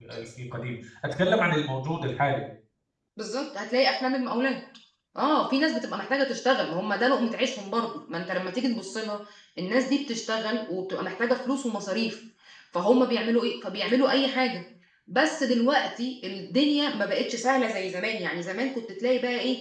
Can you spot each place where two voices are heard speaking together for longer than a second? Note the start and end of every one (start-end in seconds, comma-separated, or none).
none